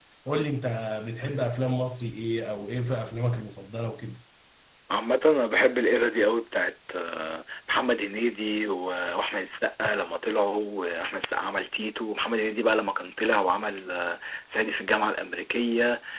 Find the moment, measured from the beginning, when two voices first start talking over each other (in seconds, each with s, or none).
none